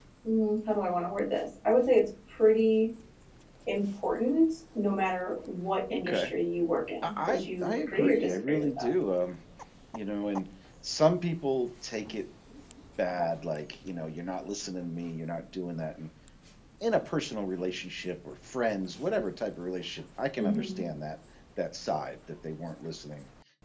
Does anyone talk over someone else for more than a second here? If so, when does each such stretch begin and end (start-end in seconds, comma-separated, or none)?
7.0-8.9